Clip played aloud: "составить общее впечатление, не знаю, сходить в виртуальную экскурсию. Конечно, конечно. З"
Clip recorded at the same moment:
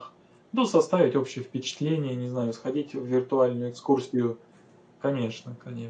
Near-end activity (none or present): none